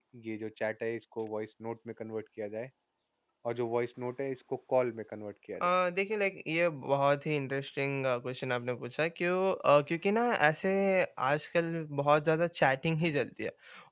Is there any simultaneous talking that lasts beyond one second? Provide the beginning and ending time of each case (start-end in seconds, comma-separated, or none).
none